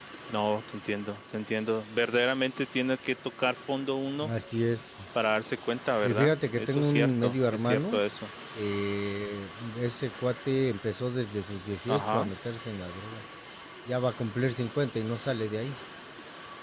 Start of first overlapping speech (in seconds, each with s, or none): 6.0 s